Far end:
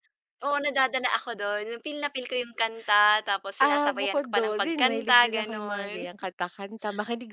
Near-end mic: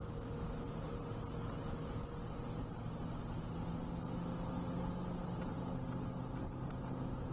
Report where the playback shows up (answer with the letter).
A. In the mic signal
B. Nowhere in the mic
B